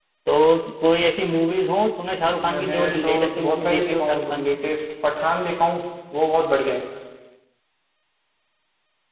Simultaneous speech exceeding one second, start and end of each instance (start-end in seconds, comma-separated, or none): 2.4-4.6